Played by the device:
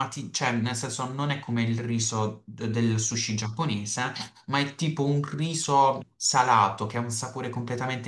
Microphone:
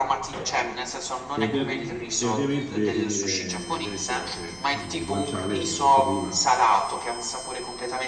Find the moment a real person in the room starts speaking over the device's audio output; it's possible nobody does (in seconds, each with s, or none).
1.3 s